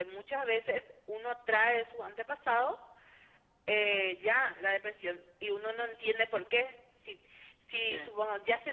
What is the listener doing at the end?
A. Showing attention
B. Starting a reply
A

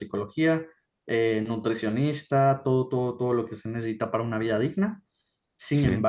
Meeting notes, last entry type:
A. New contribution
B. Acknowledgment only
B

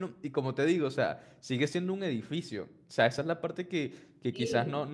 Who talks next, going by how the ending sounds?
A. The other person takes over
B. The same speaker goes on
B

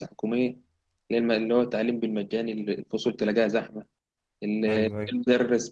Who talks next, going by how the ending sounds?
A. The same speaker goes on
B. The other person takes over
A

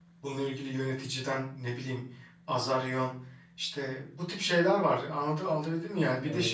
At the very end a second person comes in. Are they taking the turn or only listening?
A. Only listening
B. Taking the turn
A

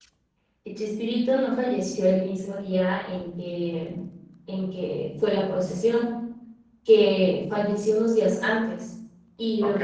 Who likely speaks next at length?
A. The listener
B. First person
B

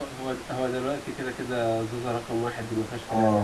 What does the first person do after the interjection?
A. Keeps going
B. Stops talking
B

